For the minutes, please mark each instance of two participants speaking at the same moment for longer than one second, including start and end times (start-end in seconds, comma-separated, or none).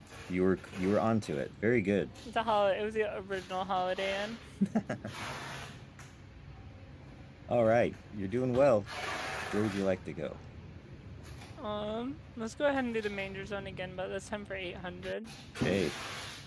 none